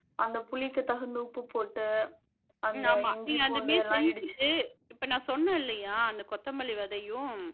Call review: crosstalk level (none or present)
present